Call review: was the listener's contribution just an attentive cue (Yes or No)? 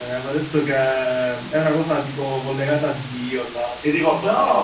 No